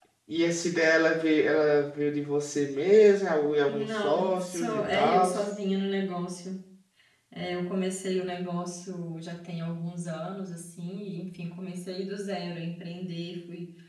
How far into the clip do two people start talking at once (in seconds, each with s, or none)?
3.7 s